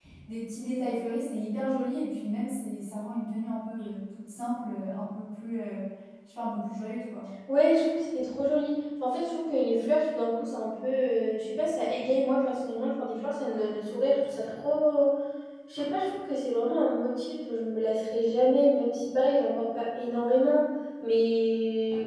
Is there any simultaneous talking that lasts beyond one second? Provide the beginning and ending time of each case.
none

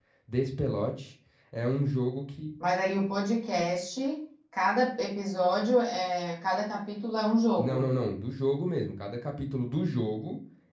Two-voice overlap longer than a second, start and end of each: none

